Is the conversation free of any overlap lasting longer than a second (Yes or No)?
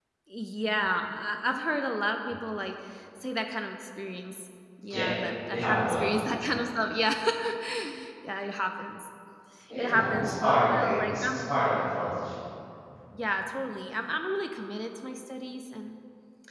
No